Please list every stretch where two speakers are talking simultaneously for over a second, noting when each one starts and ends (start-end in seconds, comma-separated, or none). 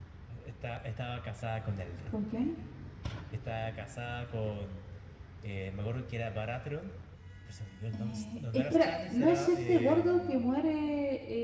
7.9-10.5